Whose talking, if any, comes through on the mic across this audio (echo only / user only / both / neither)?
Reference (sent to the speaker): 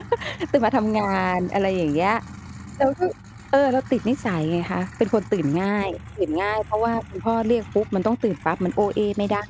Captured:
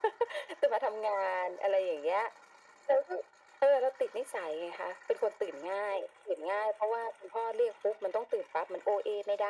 echo only